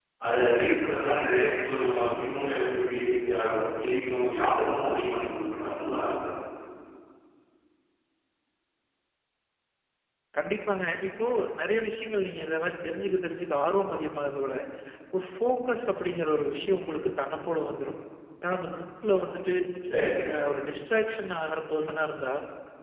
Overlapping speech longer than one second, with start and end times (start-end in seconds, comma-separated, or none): none